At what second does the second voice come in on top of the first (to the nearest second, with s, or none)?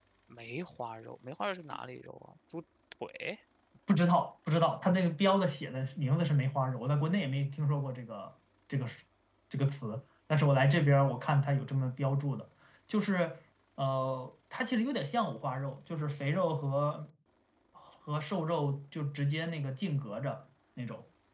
none